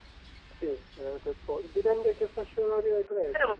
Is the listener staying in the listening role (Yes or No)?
No